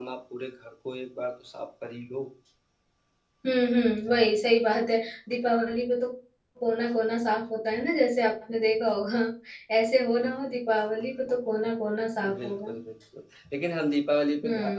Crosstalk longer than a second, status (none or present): none